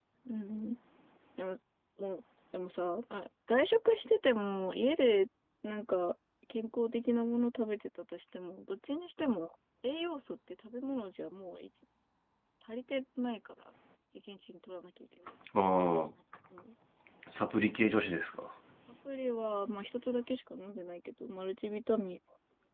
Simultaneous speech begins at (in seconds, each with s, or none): none